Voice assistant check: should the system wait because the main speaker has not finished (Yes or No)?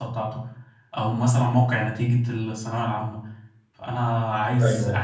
Yes